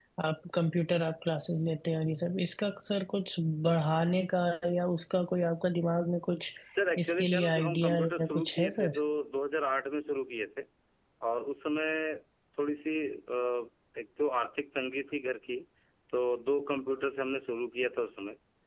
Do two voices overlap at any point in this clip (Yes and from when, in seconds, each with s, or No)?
Yes, from 7.0 s